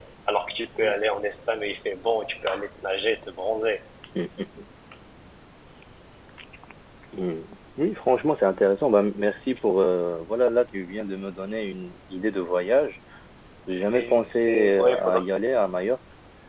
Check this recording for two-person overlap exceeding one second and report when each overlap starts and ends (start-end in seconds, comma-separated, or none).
13.9-15.2